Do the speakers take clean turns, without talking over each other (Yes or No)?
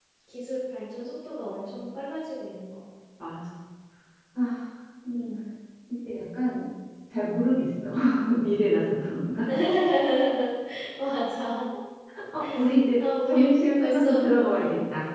No